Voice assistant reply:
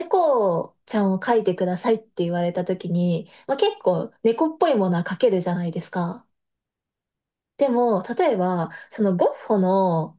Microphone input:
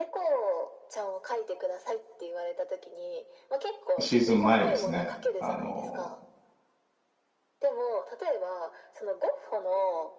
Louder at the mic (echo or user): user